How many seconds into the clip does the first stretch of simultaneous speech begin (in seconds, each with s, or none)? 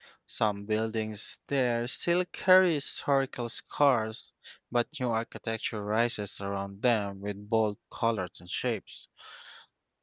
none